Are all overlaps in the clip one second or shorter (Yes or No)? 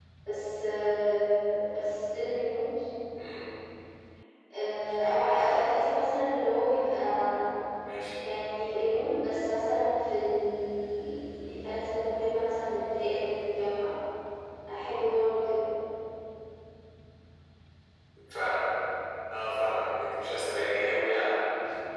Yes